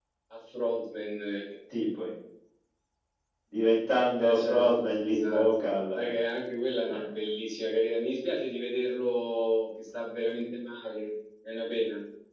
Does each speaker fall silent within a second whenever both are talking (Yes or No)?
No